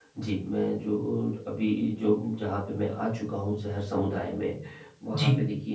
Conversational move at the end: listening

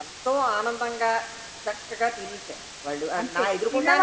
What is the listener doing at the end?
taking over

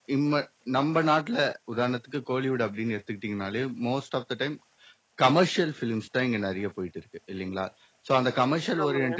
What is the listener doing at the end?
listening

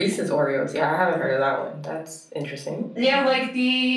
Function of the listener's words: taking over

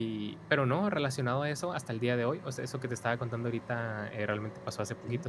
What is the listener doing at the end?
listening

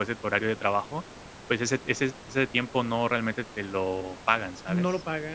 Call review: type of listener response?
taking over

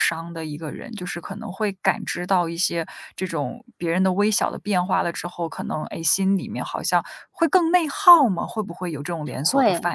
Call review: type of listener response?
taking over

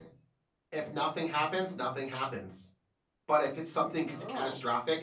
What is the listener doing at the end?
listening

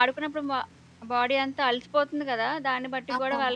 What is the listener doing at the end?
listening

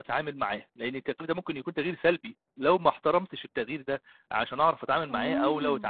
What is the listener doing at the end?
listening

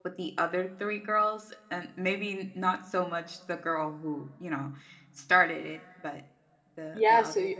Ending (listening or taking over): taking over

